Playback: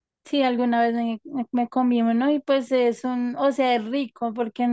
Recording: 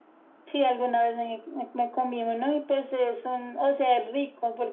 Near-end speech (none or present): none